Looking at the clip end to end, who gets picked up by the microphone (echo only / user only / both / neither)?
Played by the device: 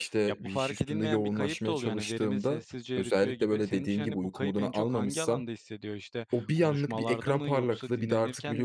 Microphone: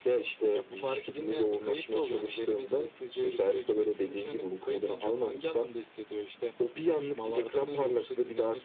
echo only